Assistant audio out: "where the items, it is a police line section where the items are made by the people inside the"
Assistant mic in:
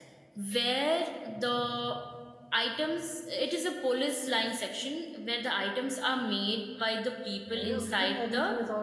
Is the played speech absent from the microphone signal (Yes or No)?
No